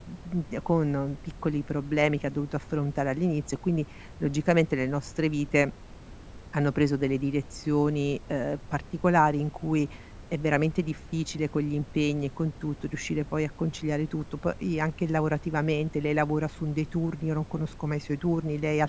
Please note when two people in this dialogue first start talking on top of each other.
none

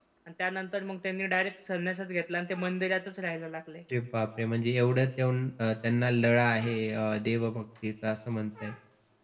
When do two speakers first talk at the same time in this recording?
none

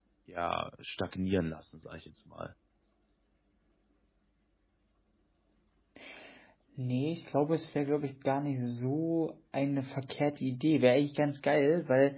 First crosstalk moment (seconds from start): none

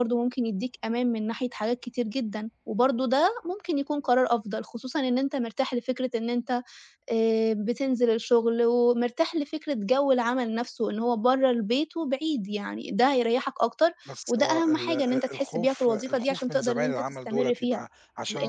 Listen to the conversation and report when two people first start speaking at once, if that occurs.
14 s

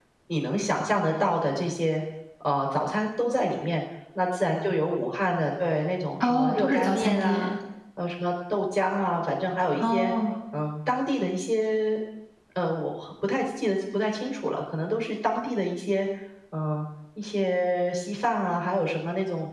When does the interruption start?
6 s

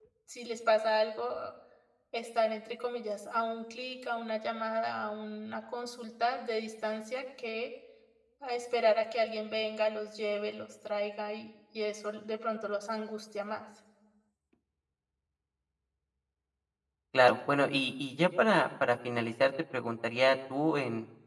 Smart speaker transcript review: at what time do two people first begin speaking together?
none

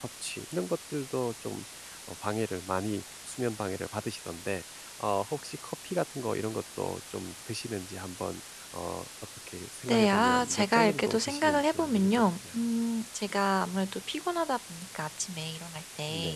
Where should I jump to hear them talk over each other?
10 s

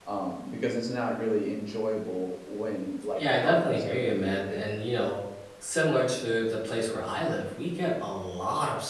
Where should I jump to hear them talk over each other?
3 s

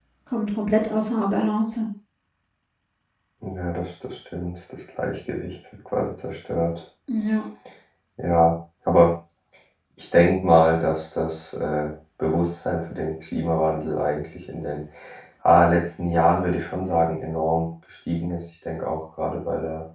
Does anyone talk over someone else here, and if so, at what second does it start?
none

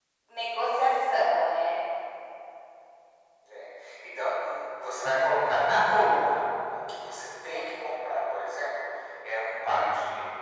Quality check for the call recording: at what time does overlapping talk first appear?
none

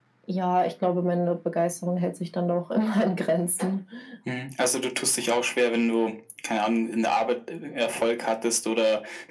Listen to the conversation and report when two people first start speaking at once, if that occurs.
none

